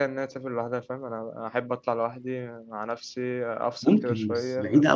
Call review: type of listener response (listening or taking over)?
taking over